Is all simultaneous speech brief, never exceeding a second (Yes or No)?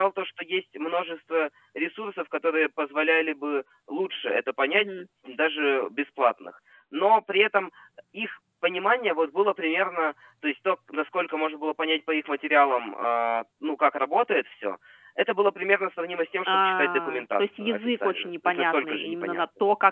No